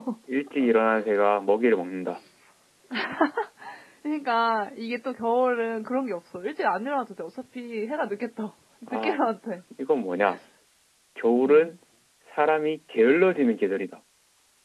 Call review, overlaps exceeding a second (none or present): none